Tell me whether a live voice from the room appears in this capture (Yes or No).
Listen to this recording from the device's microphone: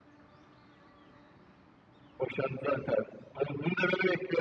No